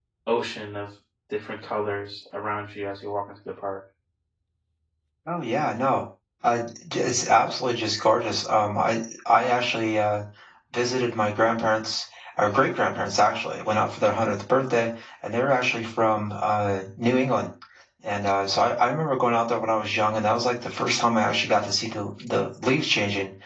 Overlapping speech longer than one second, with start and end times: none

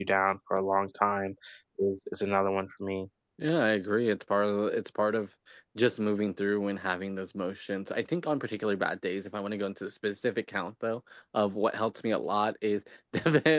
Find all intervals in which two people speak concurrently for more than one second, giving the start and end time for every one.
none

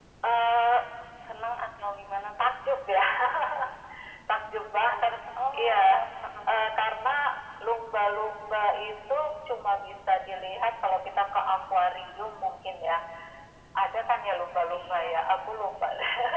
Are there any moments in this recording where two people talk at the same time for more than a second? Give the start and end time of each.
none

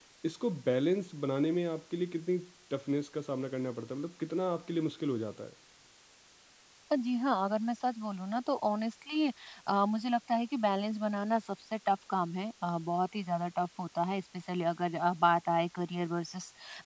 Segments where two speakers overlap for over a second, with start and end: none

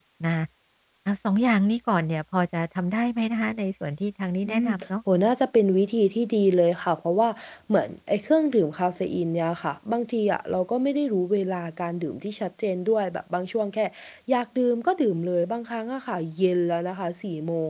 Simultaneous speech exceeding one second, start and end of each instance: none

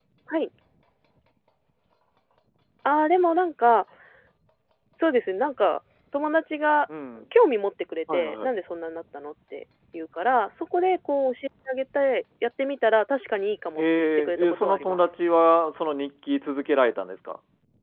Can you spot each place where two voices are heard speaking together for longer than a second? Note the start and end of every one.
13.8-15.0

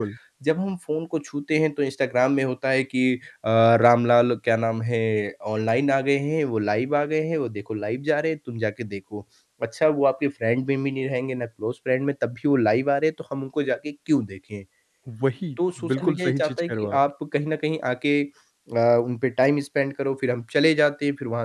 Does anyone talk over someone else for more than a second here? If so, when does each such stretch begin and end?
15.9-17.1

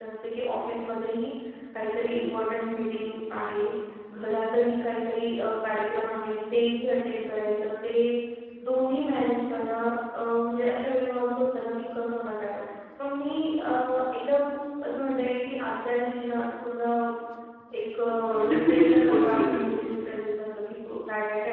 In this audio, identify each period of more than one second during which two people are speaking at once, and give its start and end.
18.3-19.8

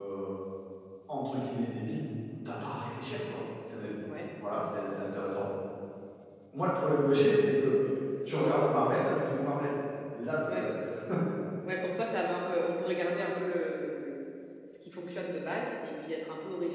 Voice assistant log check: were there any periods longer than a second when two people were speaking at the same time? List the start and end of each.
none

